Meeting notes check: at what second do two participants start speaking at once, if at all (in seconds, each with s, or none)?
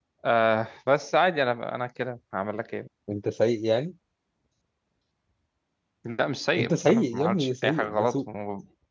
6.6 s